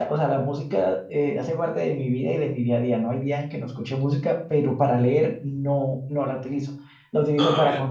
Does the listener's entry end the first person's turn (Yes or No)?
No